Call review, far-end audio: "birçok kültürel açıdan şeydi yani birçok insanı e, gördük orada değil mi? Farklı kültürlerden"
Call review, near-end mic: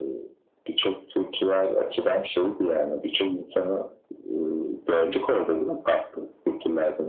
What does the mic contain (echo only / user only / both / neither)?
echo only